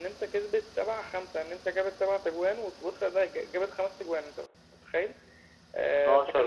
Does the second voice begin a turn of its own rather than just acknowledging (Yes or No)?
No